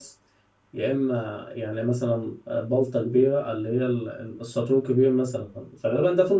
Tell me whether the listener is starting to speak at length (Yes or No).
No